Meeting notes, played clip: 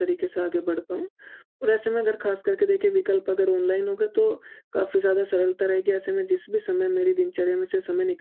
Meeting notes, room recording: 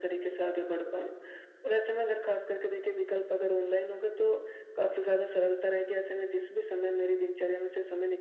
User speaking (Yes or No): No